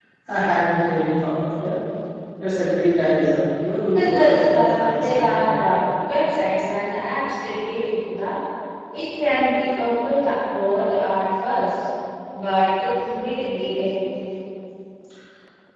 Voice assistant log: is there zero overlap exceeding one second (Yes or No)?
No